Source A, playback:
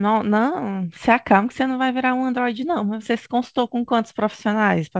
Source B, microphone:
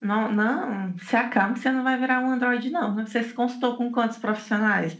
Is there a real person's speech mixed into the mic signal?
No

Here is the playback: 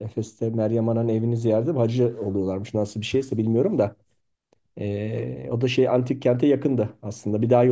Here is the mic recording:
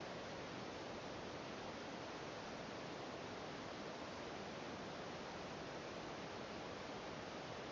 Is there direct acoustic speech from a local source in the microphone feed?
No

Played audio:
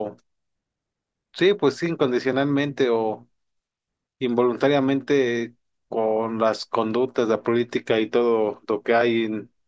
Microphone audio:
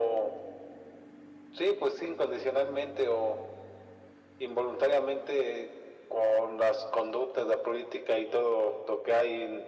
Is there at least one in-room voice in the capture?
No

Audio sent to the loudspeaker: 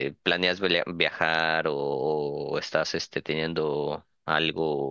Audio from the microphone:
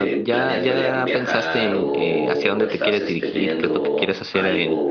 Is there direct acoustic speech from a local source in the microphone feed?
Yes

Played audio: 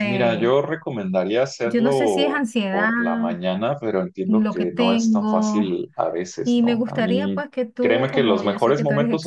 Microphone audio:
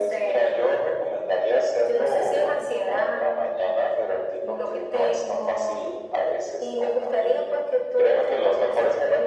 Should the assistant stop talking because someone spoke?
No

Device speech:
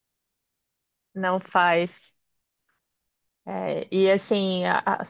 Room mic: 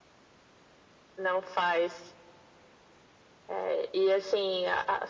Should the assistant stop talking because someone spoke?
No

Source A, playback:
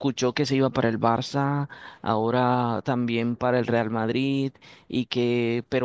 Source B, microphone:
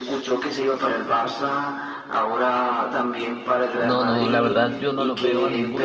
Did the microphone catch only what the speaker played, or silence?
No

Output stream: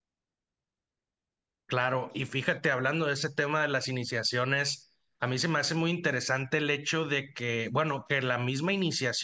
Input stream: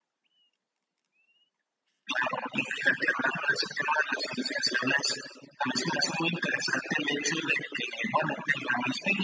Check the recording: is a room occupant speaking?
No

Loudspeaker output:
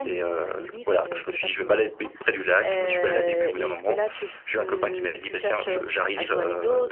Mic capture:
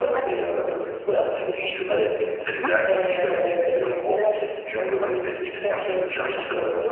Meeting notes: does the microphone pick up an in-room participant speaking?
Yes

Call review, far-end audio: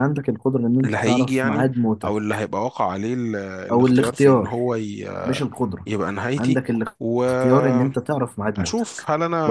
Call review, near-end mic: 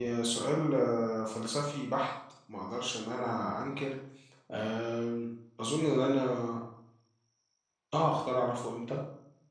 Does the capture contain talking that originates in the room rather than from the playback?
Yes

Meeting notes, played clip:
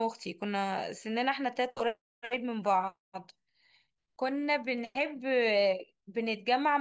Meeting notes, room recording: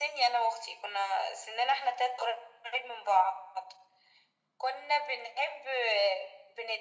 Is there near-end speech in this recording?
No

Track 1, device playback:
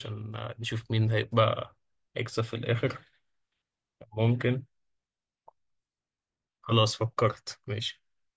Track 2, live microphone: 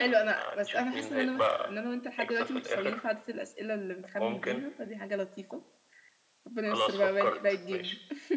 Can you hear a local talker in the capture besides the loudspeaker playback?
Yes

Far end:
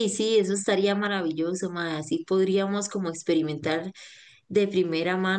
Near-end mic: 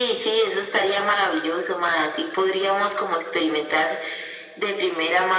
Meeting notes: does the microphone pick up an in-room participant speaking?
No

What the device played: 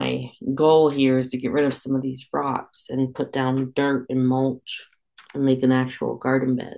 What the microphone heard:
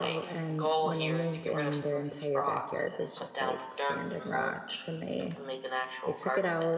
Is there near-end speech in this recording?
Yes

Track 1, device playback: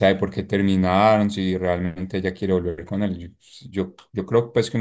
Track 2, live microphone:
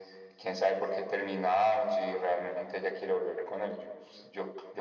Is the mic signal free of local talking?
Yes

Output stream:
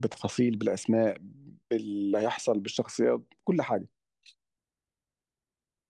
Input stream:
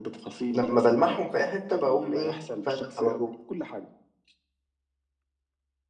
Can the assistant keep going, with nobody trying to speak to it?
No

